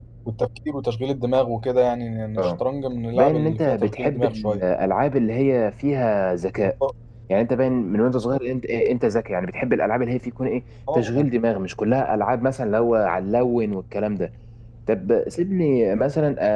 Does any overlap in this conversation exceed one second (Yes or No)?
Yes